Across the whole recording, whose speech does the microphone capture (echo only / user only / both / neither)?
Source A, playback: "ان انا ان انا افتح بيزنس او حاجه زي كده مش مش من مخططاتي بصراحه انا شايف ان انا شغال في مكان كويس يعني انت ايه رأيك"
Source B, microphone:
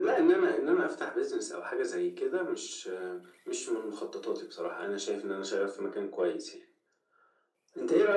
echo only